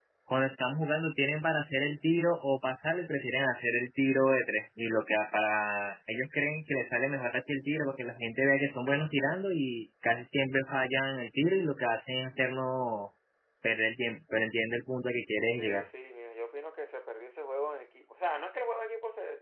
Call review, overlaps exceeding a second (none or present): none